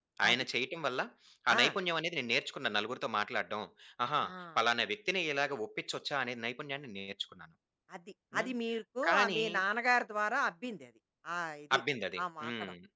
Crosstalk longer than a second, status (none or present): none